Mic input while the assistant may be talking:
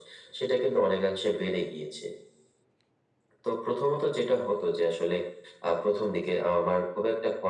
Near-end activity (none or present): none